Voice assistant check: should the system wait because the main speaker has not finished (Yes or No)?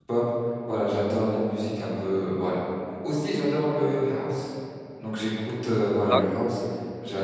Yes